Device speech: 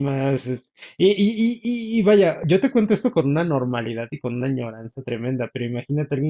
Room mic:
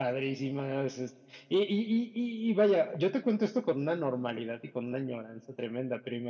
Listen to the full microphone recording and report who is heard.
echo only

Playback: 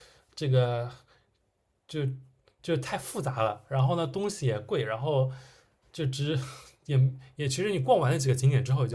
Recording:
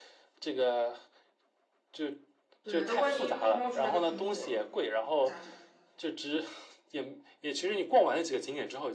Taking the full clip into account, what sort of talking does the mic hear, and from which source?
both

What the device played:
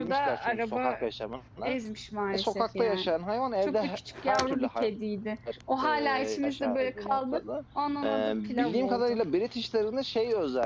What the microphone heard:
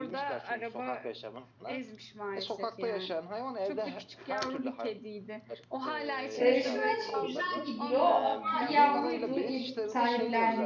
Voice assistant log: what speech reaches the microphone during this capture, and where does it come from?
both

